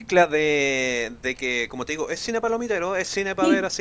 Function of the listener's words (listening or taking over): listening